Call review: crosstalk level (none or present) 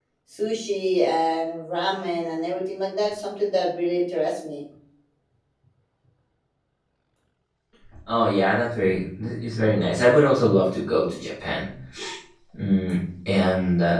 none